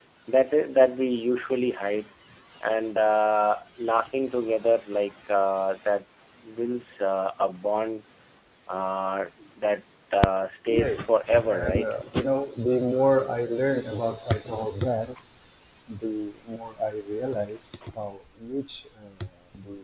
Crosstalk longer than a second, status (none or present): present